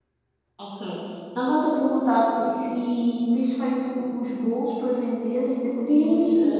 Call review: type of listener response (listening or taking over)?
taking over